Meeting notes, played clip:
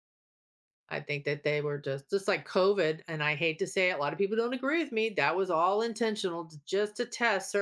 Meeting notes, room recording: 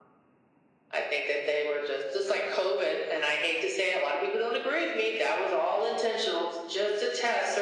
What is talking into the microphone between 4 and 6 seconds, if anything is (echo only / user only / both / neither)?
echo only